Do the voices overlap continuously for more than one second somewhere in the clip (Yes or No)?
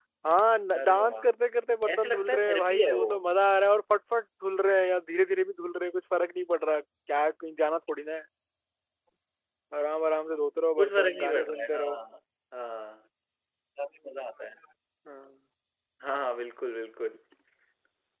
Yes